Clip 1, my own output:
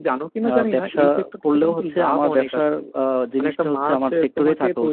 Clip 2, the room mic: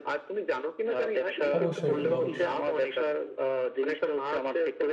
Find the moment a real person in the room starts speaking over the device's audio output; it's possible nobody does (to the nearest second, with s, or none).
2 s